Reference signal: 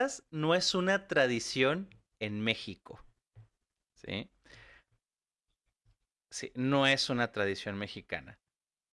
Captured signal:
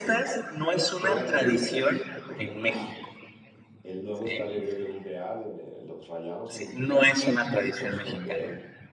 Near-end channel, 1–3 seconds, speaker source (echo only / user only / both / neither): both